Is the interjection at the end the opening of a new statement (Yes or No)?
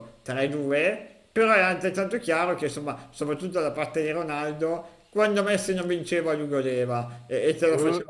No